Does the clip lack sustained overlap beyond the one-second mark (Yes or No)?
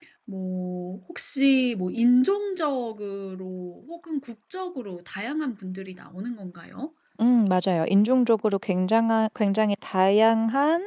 Yes